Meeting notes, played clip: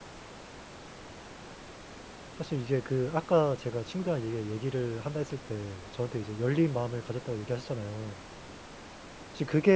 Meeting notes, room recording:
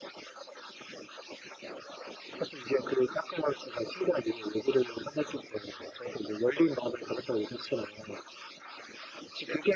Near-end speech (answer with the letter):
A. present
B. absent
B